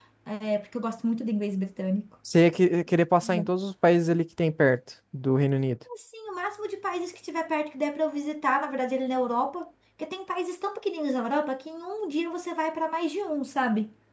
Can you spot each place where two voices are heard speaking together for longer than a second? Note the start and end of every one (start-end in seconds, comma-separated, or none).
none